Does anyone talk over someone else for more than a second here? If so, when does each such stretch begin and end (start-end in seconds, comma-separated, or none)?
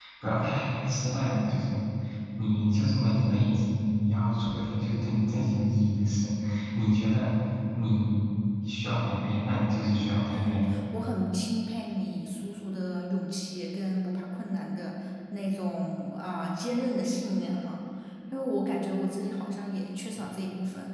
none